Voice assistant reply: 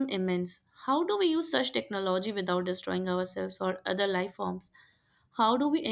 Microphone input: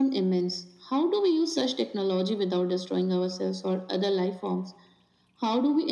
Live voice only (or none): none